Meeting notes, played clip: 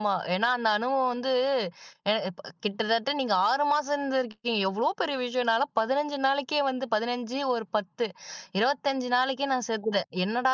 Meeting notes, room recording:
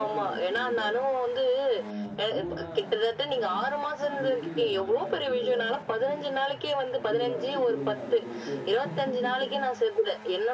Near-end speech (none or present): present